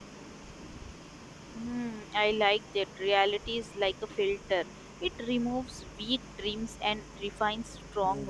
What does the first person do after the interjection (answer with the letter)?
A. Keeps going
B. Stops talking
B